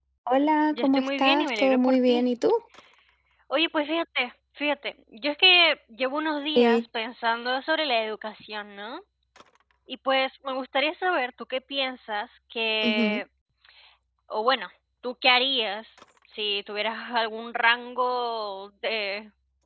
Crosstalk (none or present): present